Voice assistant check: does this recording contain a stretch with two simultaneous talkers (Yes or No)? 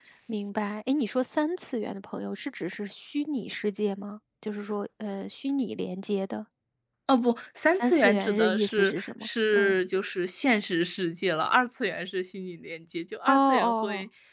Yes